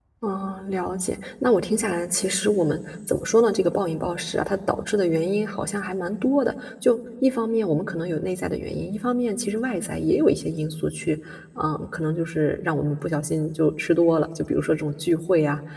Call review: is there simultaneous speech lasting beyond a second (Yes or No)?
No